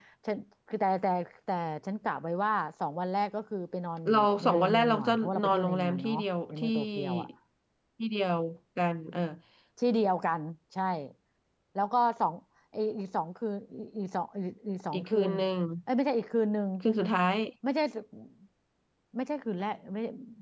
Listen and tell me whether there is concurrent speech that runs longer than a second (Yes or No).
Yes